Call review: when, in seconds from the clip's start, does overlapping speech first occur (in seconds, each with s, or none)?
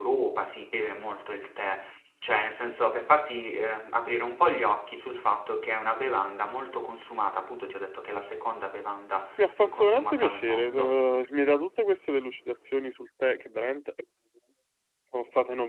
9.4 s